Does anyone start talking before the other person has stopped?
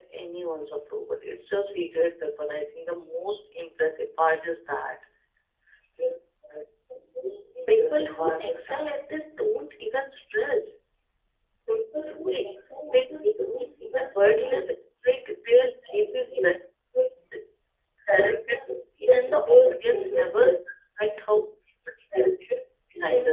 Yes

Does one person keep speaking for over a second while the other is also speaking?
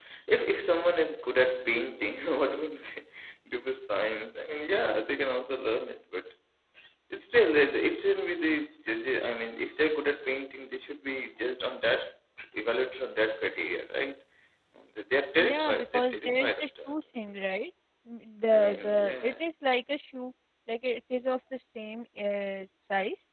Yes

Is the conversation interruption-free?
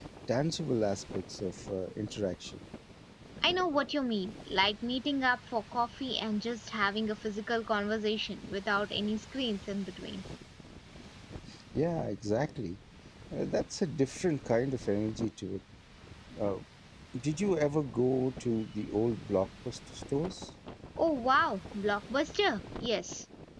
Yes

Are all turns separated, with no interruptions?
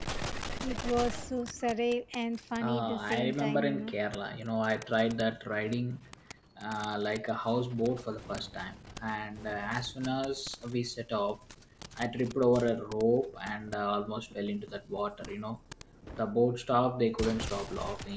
No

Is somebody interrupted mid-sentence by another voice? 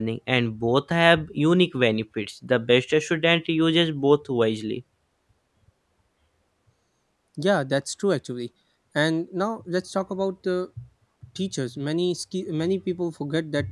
No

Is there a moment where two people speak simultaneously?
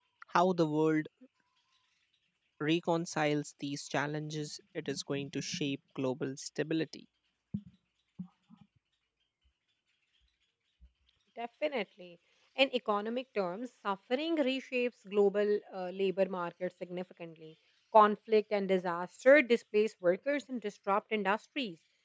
No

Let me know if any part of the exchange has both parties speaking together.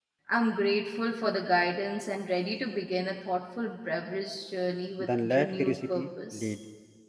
Yes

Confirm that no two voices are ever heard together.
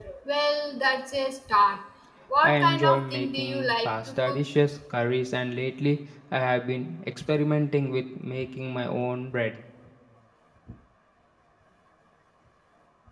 No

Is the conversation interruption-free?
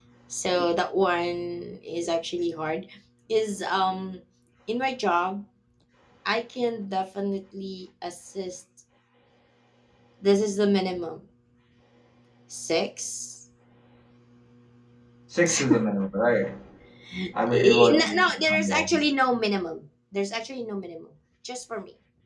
No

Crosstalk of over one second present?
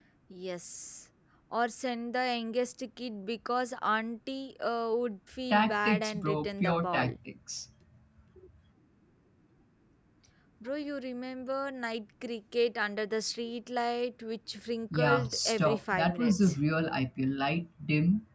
Yes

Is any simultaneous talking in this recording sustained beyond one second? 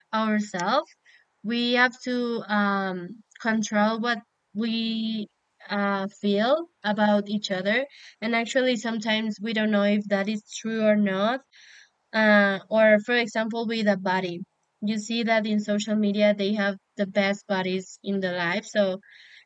No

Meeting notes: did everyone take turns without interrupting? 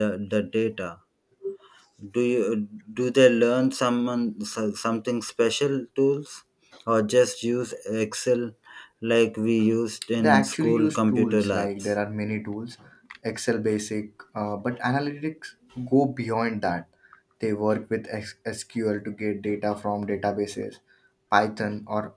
No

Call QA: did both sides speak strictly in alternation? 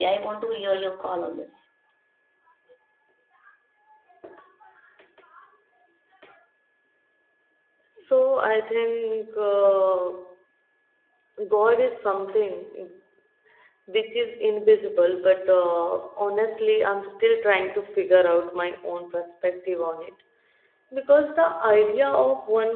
Yes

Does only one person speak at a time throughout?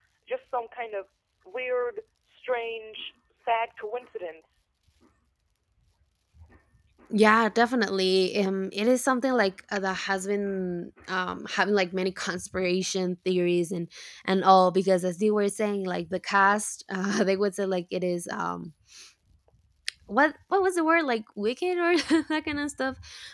Yes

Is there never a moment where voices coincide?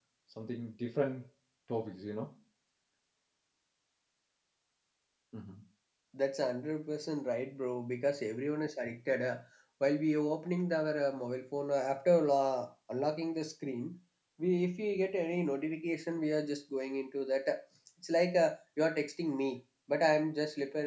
Yes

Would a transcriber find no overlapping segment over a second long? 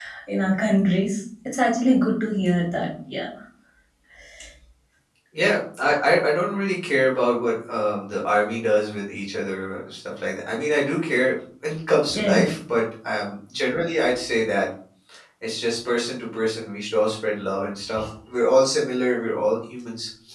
Yes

